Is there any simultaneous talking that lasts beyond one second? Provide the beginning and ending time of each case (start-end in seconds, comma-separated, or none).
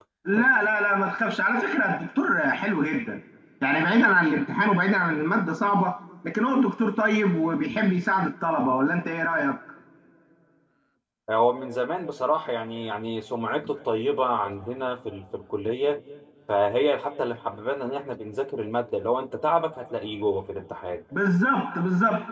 none